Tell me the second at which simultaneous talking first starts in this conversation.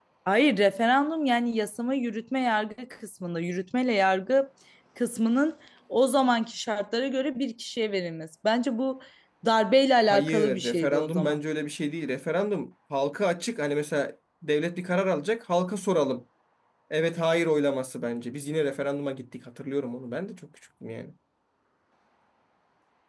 10 s

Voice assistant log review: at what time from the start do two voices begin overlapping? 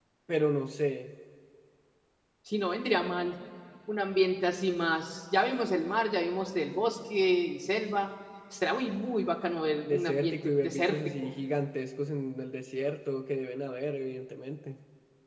10 s

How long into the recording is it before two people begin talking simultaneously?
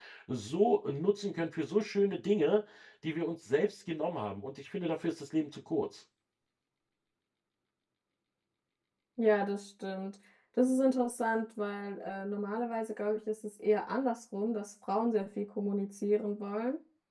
none

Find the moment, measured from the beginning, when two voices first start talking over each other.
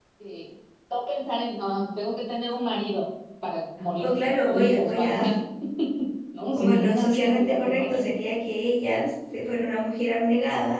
4 s

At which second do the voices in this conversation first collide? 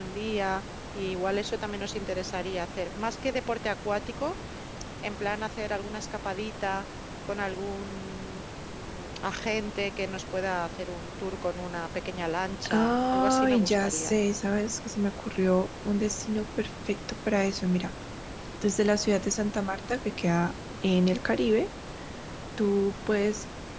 13 s

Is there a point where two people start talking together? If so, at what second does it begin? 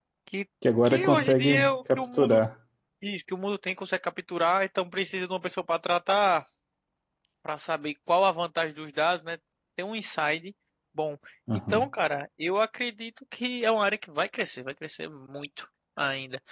1 s

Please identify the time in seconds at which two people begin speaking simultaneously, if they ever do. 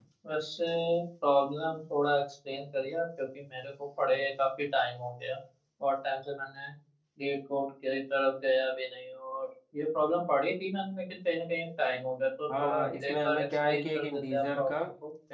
12 s

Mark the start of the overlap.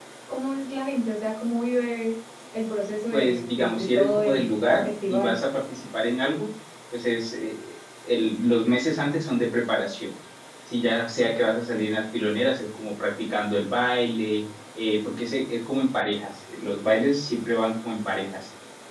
3 s

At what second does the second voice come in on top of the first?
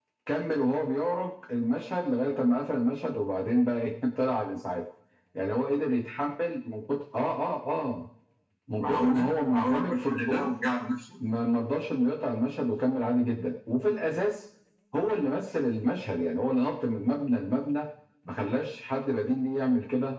9 s

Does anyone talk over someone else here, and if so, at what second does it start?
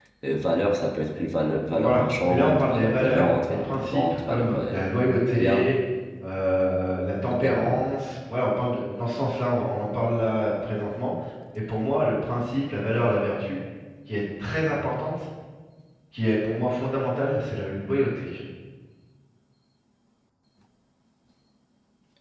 2 s

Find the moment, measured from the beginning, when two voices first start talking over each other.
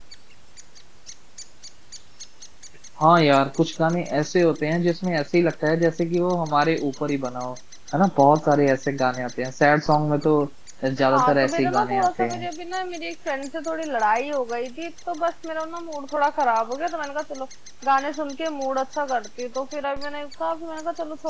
11 s

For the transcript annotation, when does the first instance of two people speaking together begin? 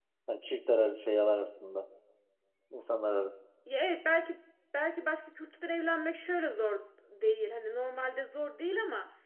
none

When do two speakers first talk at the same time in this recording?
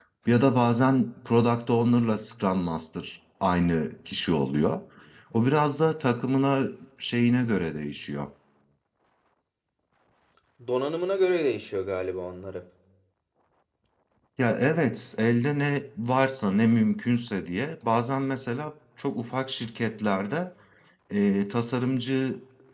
none

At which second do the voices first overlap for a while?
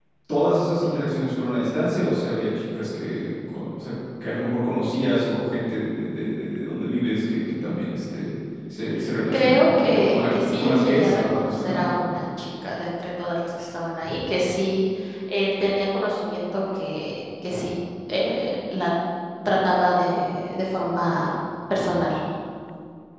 9 s

